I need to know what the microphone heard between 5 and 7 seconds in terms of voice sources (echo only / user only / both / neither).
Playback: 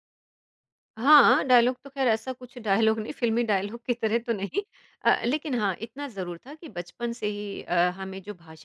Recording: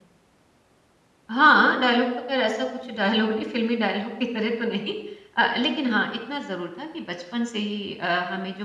echo only